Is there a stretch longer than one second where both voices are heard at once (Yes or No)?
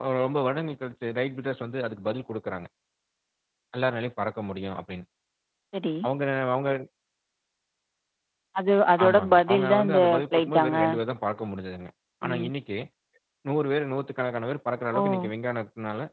Yes